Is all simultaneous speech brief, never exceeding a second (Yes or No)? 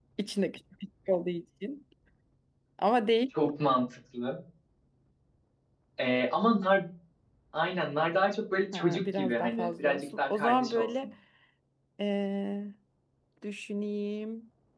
No